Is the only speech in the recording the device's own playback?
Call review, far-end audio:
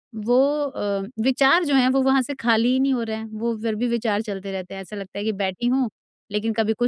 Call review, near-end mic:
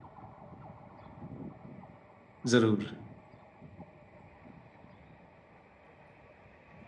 No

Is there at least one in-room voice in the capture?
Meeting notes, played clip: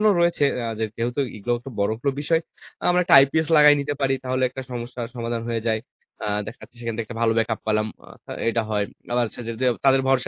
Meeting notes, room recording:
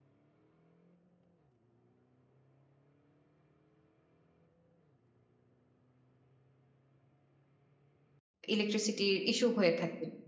Yes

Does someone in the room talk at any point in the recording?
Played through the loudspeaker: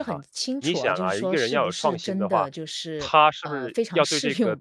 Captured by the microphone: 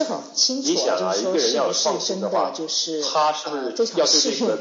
No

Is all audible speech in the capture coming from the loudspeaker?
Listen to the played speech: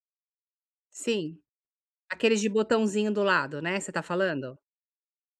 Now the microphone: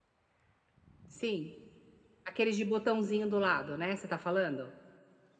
Yes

